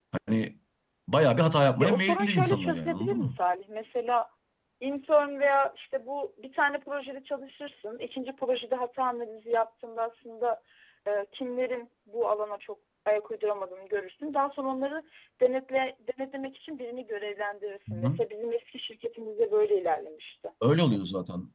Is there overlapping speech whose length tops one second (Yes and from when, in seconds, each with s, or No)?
Yes, from 1.8 s